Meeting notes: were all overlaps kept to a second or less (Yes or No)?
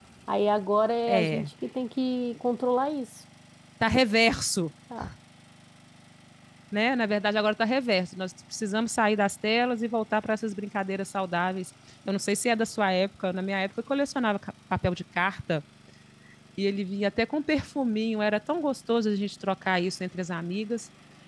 Yes